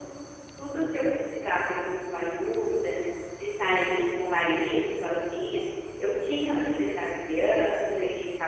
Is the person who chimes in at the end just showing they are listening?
Yes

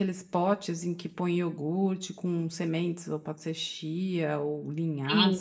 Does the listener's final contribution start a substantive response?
Yes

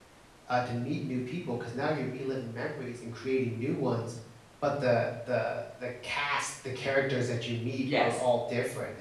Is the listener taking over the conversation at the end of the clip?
No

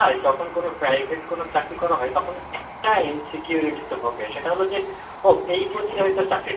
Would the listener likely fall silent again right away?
Yes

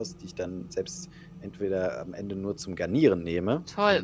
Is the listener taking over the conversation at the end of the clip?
Yes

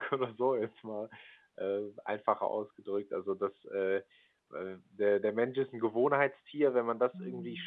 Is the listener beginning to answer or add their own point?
No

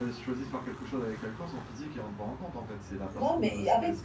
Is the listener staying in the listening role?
No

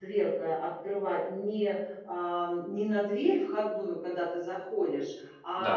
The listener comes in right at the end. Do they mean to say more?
No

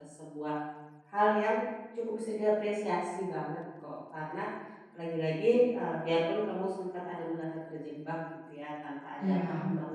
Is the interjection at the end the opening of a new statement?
No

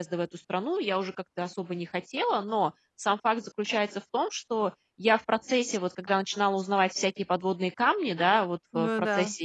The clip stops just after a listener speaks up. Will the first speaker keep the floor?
Yes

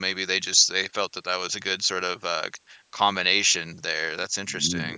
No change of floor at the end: No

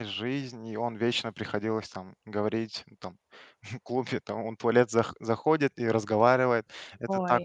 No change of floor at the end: Yes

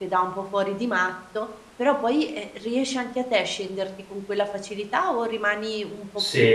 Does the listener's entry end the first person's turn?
Yes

